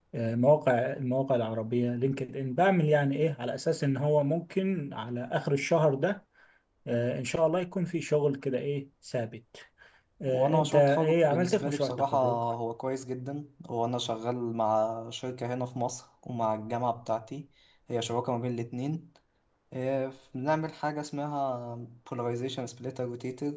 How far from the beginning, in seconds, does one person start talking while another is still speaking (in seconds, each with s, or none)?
10.3 s